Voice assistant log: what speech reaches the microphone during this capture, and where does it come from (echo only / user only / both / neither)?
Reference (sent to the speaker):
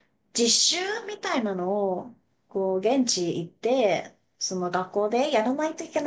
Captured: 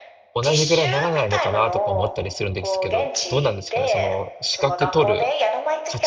both